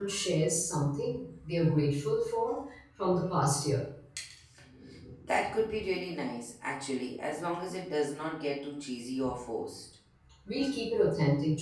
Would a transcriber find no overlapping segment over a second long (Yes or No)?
Yes